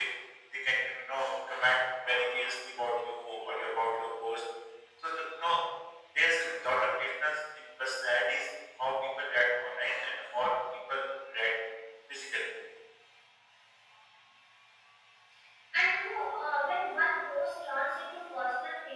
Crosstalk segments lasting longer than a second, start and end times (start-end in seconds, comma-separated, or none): none